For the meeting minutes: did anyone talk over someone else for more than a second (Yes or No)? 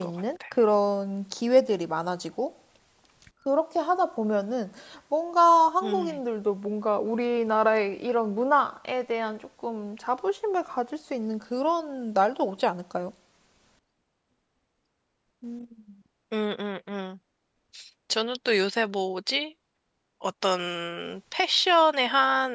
No